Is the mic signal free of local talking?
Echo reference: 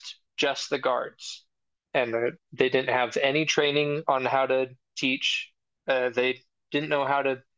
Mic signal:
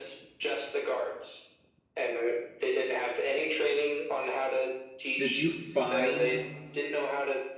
No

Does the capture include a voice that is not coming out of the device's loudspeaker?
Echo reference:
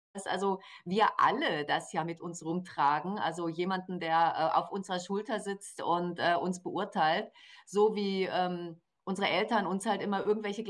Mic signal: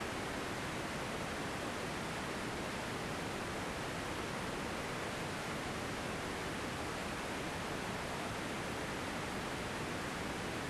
No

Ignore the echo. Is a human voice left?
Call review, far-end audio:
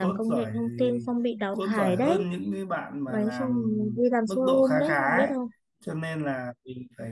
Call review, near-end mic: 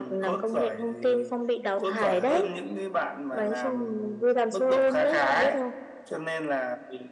No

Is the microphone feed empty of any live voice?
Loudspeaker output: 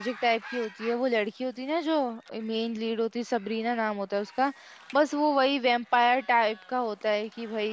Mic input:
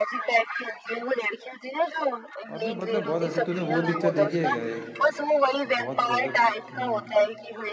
No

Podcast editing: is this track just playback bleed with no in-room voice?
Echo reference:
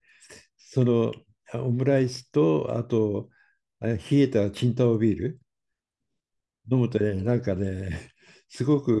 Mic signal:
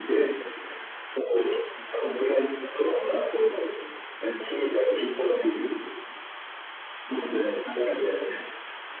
Yes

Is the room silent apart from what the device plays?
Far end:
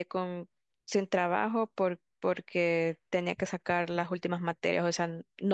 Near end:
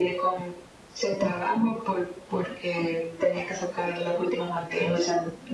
Yes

